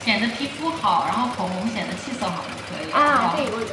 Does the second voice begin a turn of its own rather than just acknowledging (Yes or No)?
Yes